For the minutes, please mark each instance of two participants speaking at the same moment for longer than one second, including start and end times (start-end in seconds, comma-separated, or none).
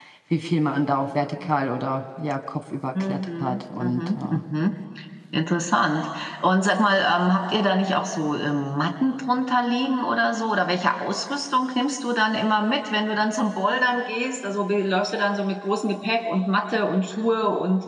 3.1-4.4